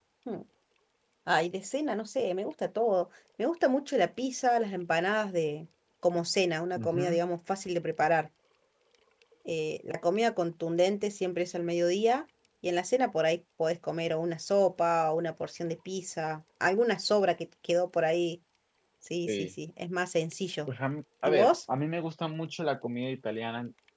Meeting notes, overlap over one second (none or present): none